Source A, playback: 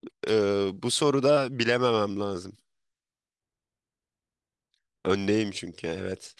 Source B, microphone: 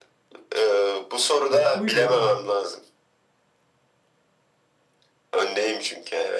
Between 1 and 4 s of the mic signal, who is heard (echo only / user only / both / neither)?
both